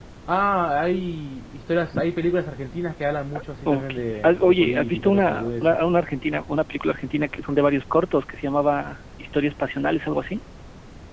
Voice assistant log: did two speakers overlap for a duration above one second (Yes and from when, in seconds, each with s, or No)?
Yes, from 3.6 s